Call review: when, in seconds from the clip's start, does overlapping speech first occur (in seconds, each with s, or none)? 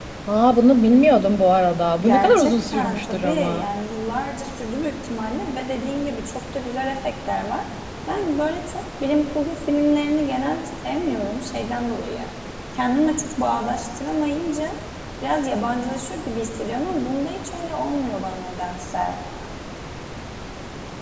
2.0 s